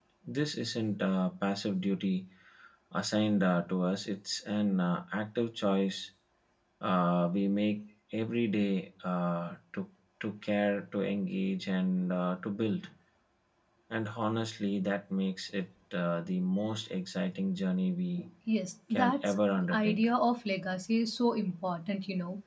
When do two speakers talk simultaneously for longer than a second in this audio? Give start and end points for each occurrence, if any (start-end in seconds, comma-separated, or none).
none